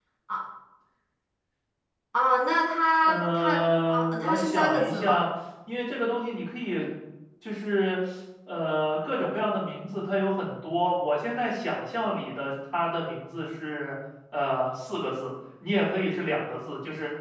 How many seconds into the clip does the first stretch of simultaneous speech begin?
3.0 s

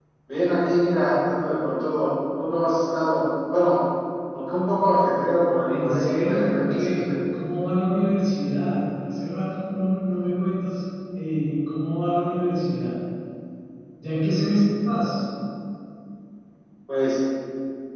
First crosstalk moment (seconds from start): 5.7 s

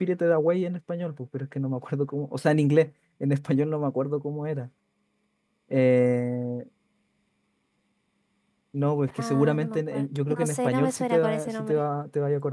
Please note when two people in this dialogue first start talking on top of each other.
9.2 s

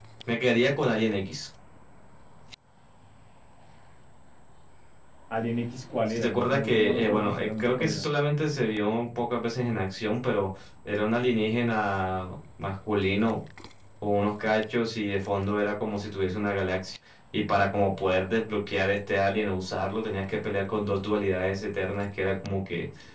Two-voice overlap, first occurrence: 6.1 s

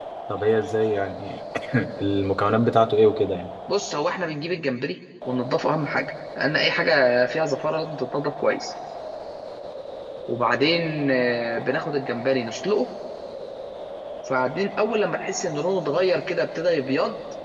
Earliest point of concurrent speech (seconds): none

